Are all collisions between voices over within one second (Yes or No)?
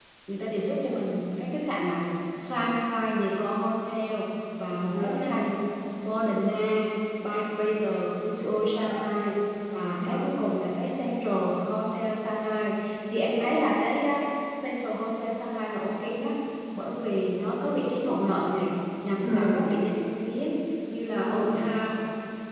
Yes